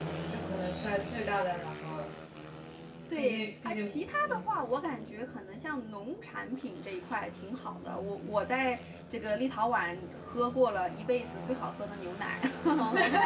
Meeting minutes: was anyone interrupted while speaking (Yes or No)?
Yes